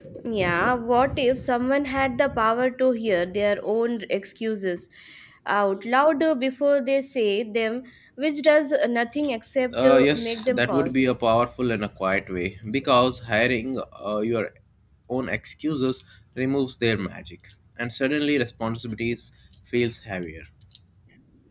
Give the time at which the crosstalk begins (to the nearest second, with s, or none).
10 s